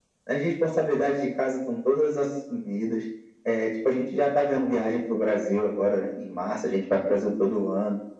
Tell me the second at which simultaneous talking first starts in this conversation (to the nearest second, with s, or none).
none